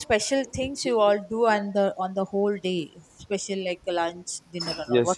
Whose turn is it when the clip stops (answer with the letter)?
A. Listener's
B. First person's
A